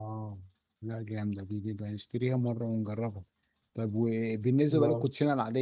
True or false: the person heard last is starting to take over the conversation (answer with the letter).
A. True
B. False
B